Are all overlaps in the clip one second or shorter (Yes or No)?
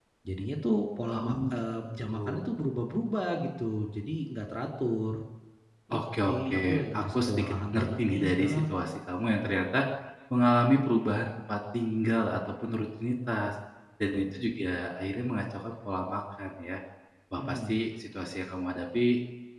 No